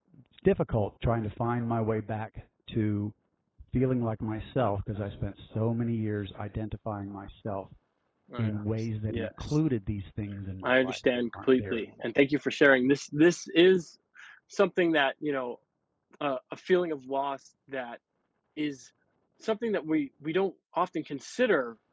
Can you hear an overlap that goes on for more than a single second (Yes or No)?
Yes